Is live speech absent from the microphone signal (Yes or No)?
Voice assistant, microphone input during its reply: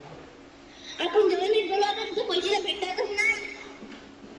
Yes